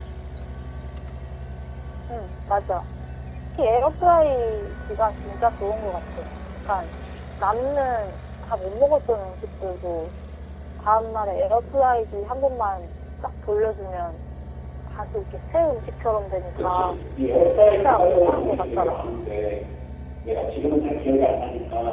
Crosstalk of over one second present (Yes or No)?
Yes